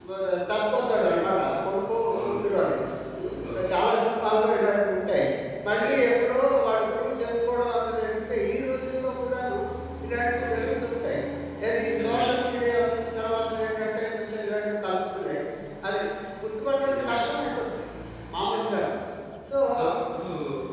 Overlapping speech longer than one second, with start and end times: none

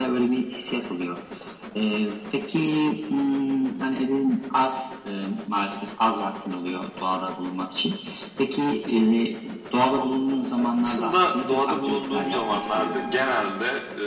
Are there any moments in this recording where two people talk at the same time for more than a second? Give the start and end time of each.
10.6-13.1

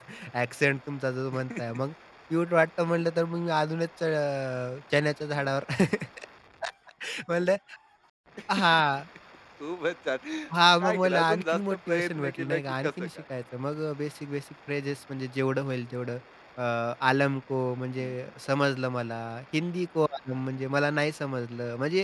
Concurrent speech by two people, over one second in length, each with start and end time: 10.8-13.2

